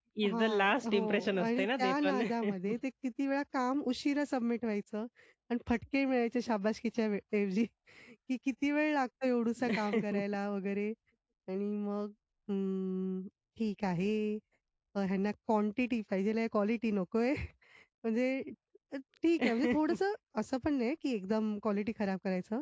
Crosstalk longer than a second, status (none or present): present